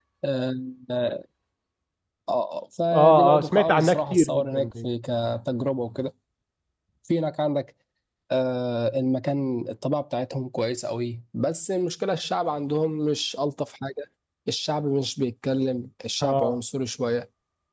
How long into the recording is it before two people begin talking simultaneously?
3 s

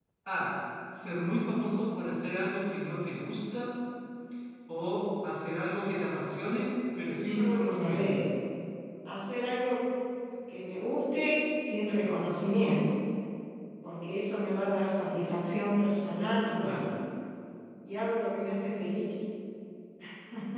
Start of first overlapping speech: 7 s

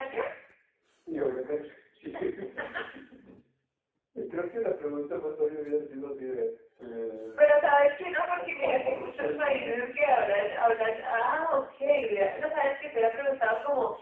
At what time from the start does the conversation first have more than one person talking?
8 s

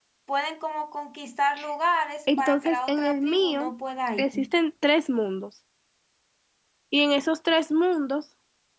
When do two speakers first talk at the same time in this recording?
2 s

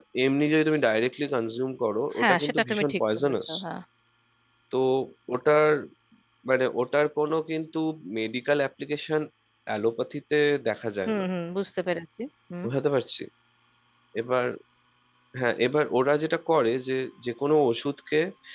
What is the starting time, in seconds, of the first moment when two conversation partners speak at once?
2 s

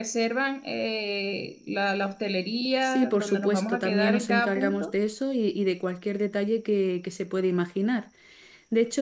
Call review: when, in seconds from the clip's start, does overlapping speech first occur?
3 s

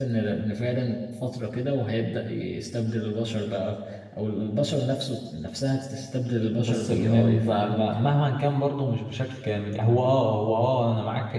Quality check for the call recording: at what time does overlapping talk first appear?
7 s

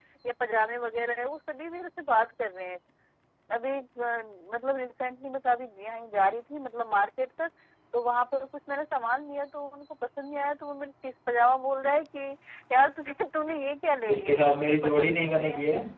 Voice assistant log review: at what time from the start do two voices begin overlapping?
14 s

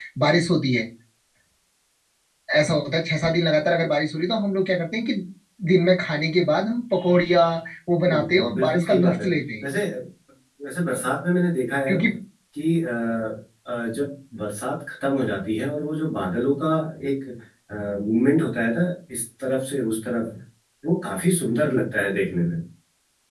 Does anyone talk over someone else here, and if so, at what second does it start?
8 s

